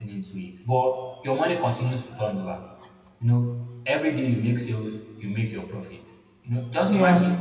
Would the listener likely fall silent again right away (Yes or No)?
Yes